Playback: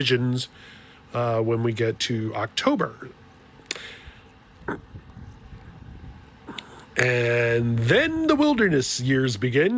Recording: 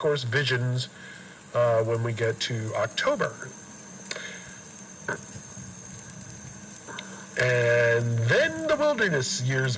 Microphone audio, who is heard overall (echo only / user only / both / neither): echo only